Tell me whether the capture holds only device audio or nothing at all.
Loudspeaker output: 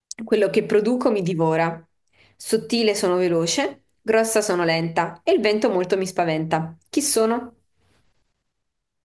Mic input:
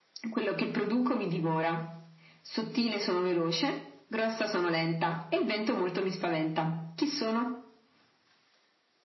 Yes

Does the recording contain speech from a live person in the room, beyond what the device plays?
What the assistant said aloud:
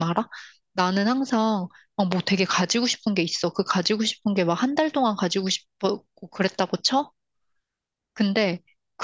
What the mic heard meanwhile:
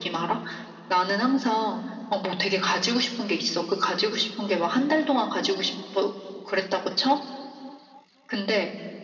No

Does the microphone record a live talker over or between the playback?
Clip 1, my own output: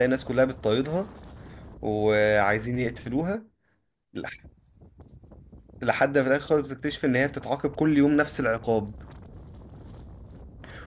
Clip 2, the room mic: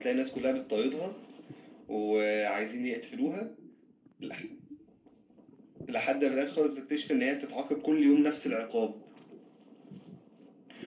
No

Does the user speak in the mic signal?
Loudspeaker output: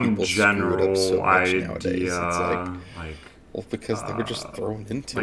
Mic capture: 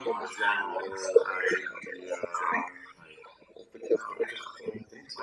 No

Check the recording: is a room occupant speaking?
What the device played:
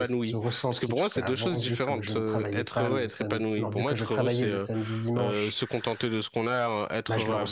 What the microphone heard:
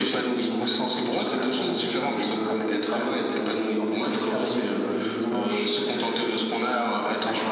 No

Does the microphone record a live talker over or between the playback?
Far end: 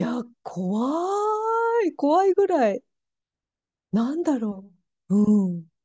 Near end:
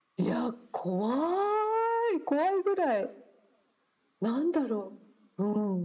No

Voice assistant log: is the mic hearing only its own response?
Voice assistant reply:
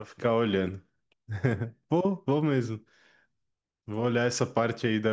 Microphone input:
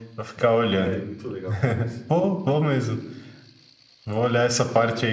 No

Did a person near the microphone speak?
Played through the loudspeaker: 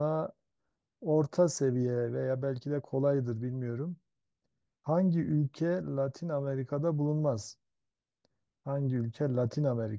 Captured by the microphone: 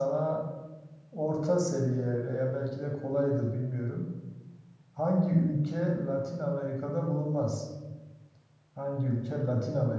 No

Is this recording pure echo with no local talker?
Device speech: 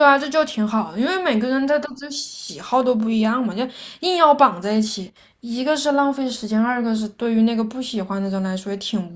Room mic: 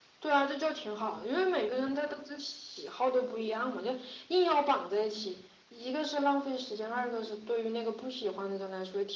Yes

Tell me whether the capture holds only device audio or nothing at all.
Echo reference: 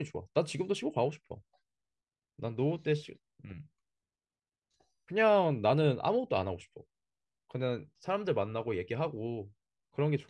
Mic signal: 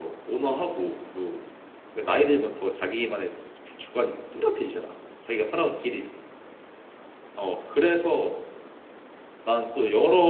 No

